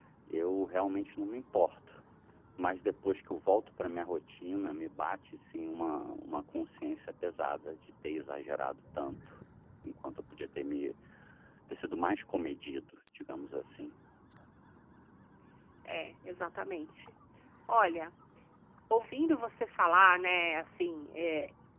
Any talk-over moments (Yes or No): No